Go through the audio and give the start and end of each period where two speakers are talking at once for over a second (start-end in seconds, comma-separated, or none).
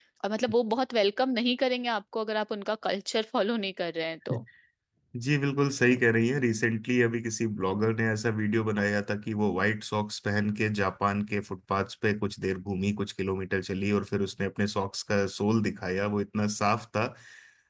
none